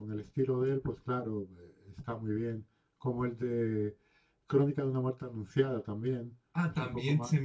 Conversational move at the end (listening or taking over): taking over